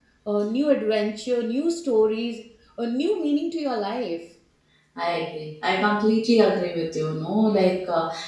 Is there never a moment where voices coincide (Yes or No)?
Yes